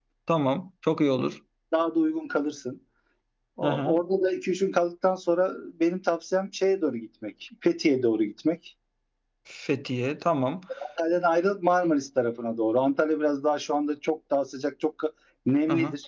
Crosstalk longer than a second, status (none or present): none